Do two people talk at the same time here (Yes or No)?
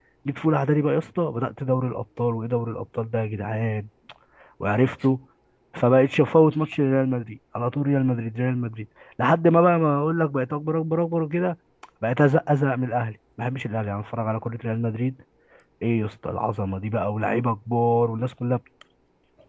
No